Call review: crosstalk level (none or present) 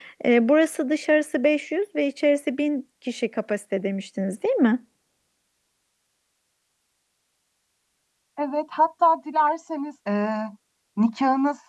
none